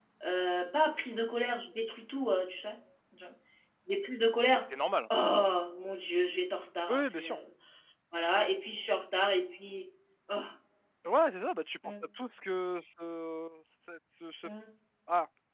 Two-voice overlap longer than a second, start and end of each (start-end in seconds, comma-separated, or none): none